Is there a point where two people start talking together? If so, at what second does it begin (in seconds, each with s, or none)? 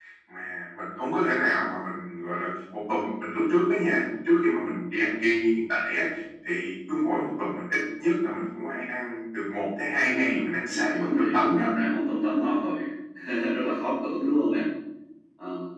10.0 s